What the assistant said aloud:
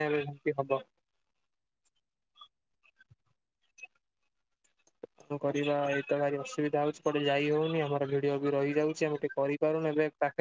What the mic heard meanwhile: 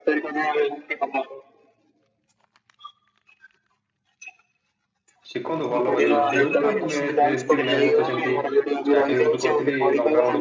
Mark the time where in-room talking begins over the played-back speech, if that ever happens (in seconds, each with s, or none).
5.3 s